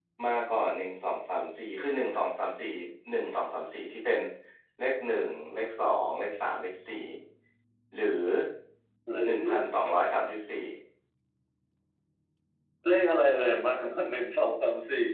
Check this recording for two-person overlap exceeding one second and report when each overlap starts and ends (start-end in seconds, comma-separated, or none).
none